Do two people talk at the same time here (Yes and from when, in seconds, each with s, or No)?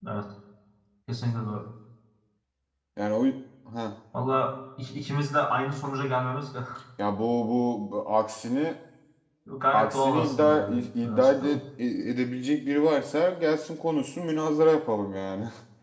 Yes, from 9.7 s